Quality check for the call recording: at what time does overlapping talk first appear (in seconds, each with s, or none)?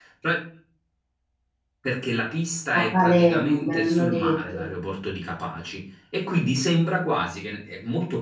2.7 s